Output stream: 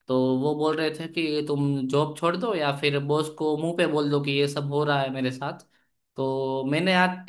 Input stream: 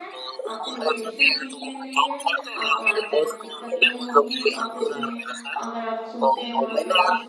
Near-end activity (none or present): present